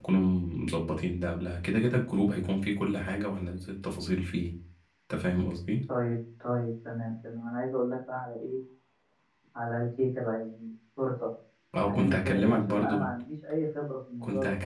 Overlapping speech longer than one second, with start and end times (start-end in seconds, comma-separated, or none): 11.8-13.1